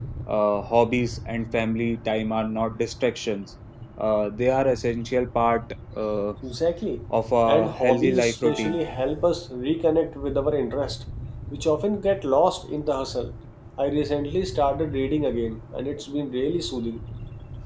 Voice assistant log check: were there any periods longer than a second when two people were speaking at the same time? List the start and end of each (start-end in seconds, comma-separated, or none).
7.5-8.8